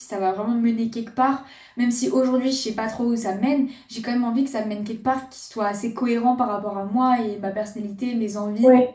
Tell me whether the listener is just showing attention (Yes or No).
Yes